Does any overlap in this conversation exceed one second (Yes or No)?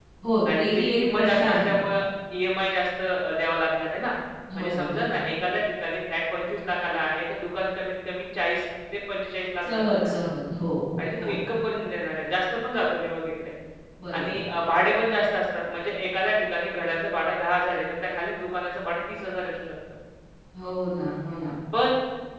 Yes